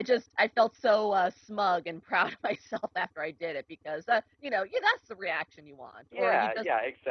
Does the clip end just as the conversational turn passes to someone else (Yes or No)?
Yes